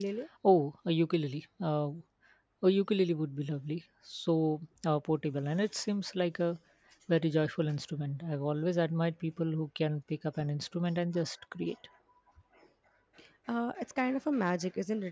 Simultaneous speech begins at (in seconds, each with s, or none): none